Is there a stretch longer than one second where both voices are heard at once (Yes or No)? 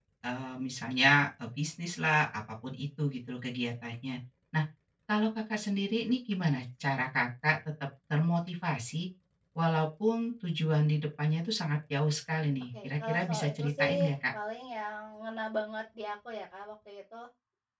Yes